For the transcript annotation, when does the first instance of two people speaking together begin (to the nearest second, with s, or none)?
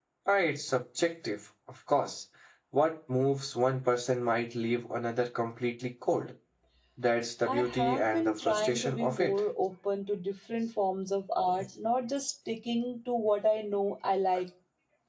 7 s